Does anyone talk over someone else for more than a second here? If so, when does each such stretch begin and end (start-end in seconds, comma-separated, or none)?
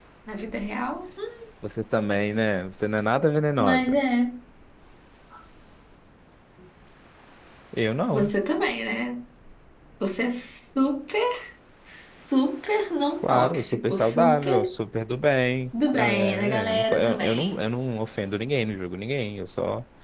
13.2-14.7, 15.9-17.6